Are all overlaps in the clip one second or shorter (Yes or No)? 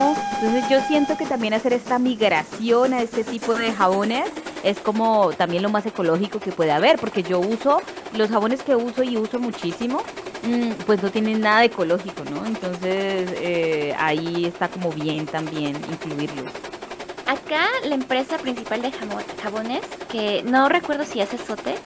Yes